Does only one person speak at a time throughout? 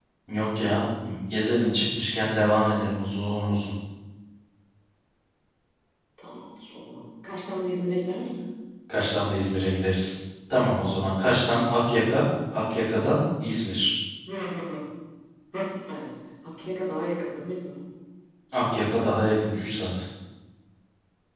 Yes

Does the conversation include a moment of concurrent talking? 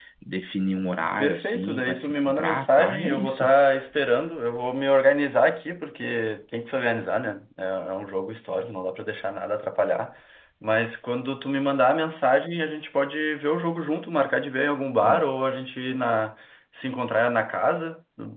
Yes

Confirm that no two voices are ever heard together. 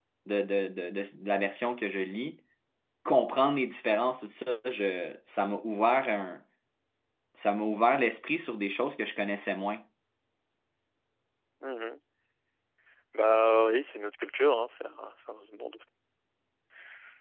Yes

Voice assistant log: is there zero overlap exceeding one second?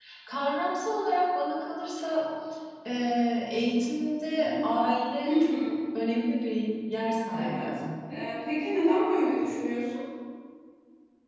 Yes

